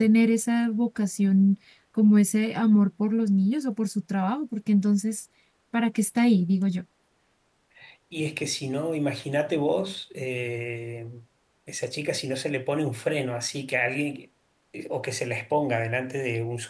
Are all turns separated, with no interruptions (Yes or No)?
Yes